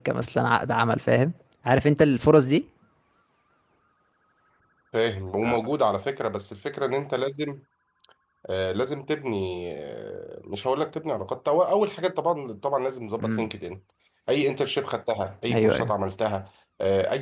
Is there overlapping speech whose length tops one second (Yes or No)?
No